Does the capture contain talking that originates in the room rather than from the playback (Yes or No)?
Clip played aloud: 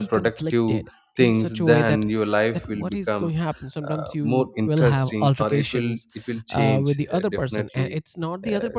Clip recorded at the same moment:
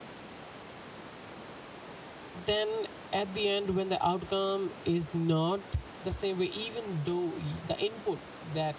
Yes